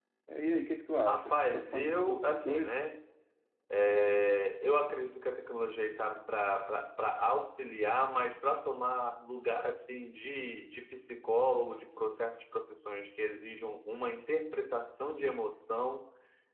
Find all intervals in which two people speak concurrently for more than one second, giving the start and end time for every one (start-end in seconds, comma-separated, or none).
1.0-2.7